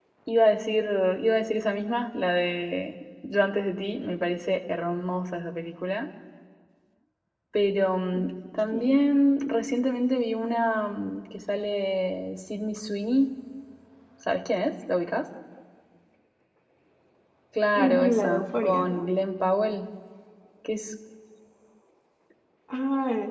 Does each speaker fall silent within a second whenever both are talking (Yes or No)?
No